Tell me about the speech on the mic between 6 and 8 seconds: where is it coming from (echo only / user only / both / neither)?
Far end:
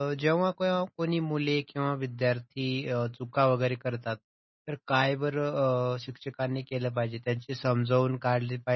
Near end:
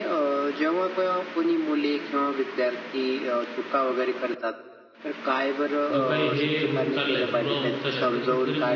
both